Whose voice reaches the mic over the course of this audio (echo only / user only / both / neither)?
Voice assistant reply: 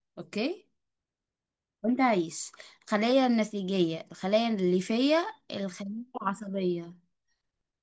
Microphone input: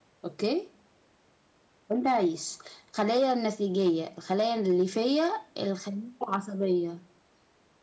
echo only